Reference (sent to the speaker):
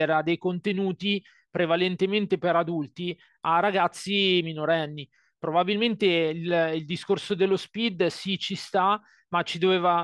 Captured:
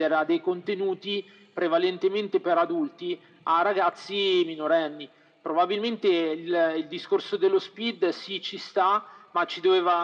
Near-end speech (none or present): none